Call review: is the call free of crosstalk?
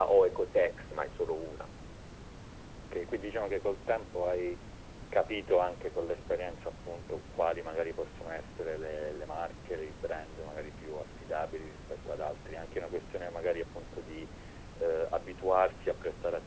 Yes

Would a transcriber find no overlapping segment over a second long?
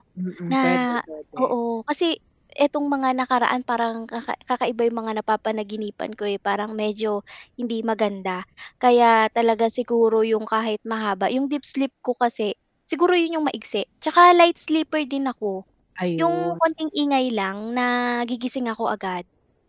Yes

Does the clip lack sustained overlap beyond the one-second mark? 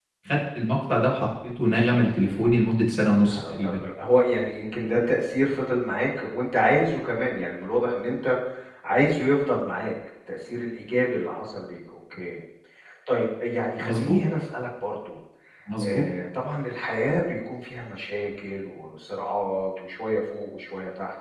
Yes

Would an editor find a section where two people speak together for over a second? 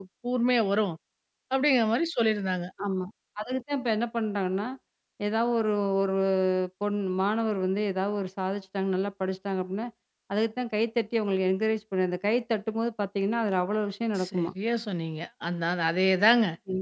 No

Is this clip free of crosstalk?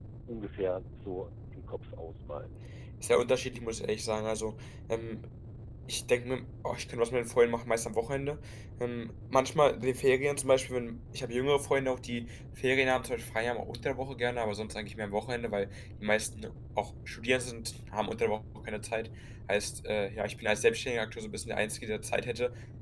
Yes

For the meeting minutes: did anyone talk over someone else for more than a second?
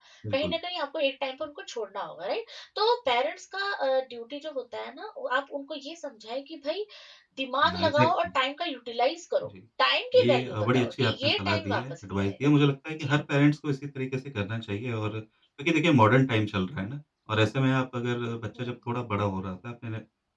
Yes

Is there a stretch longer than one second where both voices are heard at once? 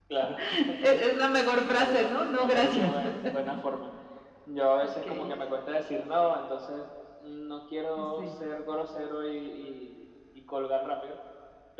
Yes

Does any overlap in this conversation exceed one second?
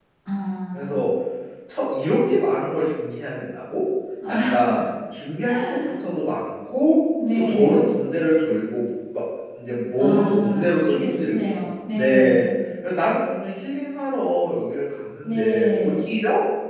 Yes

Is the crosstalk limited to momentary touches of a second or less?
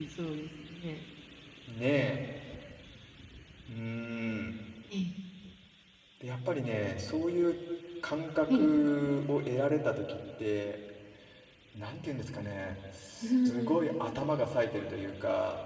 Yes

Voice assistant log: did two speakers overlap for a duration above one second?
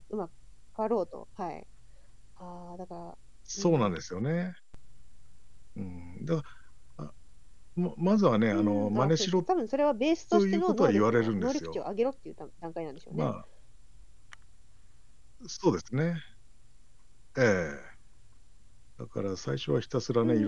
Yes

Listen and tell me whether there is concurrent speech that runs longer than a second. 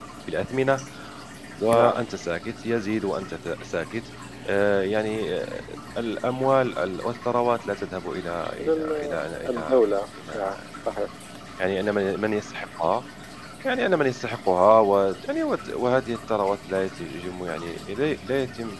Yes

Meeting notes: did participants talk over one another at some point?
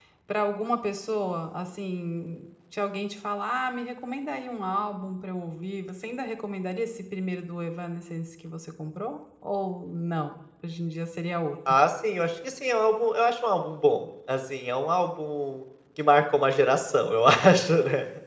No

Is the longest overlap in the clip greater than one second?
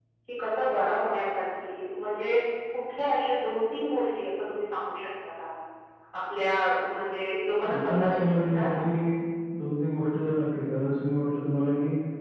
Yes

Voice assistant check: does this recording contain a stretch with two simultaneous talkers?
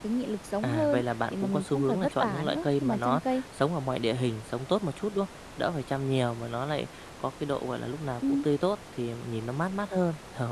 Yes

